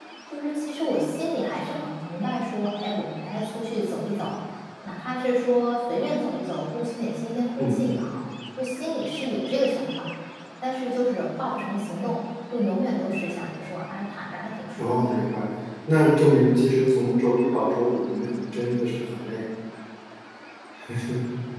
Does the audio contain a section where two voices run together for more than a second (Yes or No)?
No